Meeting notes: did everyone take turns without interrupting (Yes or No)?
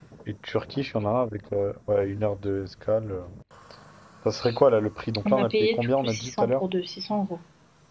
No